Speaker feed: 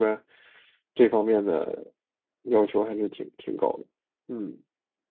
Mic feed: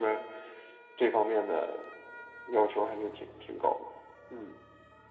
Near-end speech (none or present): none